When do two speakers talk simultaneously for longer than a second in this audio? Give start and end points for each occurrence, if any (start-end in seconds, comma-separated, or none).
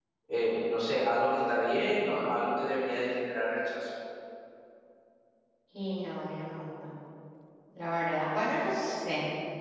none